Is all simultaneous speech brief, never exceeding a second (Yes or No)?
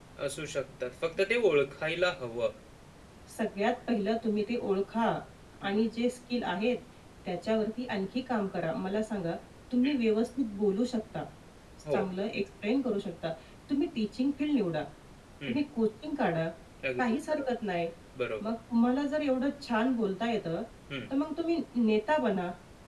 Yes